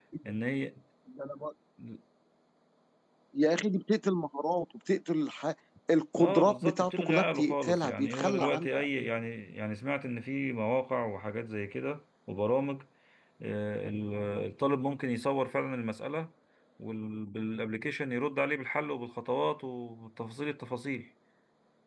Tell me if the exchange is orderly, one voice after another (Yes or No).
No